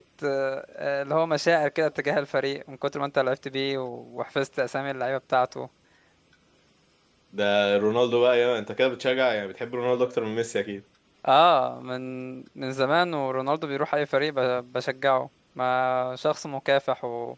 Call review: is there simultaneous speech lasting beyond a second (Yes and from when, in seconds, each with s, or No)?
No